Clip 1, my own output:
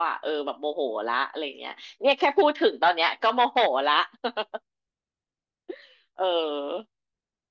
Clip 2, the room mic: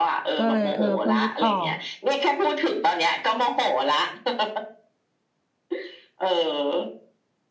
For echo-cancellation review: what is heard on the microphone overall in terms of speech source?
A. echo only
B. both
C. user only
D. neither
B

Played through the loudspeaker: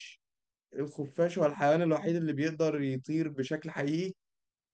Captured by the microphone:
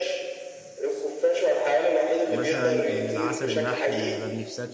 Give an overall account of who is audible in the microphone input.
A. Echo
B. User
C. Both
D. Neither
C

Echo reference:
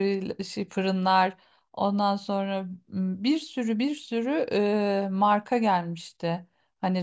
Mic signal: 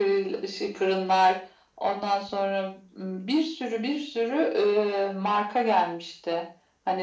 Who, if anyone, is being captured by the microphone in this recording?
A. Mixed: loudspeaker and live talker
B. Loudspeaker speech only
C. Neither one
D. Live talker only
B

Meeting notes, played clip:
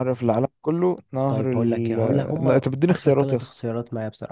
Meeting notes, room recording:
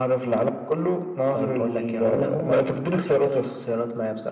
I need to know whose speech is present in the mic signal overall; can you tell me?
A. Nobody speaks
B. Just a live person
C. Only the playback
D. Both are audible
C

